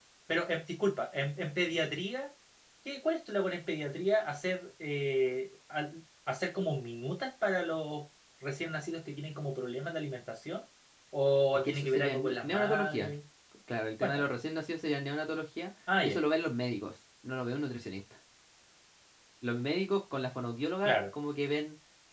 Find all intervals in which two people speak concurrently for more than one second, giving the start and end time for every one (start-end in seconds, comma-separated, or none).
11.6-13.1